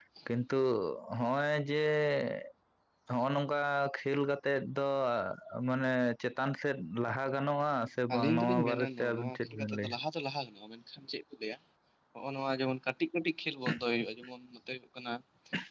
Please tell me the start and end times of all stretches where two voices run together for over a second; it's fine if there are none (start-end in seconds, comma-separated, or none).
8.2-9.9